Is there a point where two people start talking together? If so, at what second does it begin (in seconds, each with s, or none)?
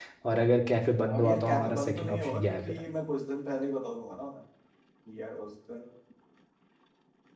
1.0 s